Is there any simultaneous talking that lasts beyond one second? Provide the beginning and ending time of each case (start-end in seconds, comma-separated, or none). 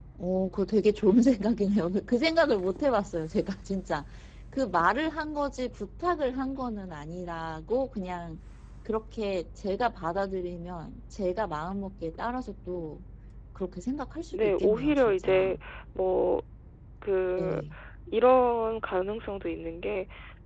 14.3-15.6